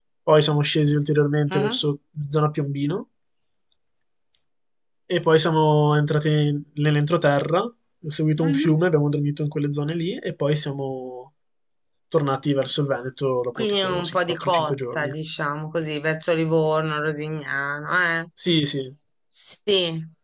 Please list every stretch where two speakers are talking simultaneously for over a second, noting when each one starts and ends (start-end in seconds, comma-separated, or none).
13.6-15.1